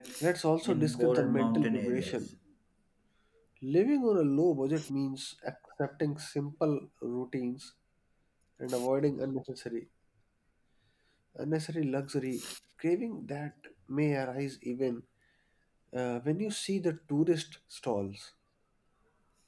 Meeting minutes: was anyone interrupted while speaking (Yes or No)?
Yes